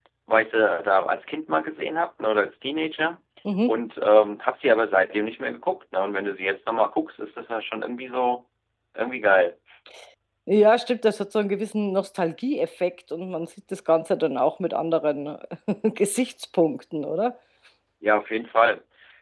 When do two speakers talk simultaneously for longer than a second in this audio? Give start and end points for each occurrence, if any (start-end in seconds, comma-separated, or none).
none